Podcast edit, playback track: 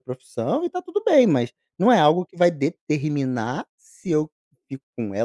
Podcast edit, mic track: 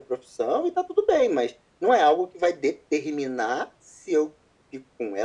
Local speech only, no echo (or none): none